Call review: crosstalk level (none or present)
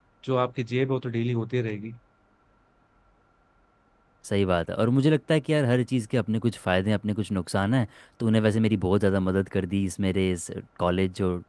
none